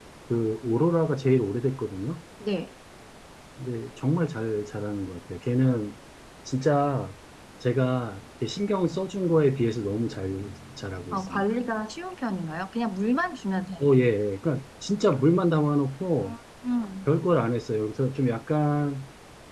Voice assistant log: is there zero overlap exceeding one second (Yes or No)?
Yes